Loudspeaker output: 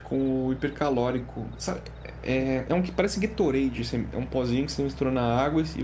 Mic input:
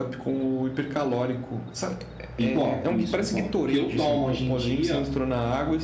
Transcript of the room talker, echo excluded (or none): em pó, isso, em pó. O que eu tomo hoje em dia